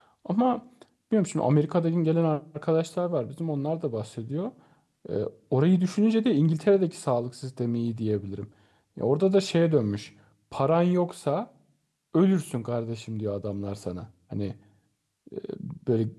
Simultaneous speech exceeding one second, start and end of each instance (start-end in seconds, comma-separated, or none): none